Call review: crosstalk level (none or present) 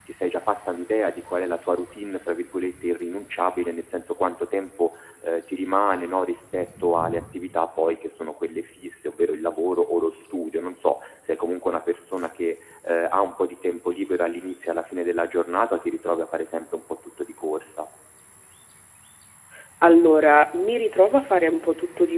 none